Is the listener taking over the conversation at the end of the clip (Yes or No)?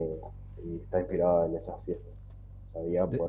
No